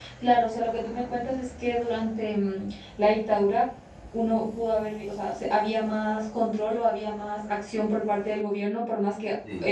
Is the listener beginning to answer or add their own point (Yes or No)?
No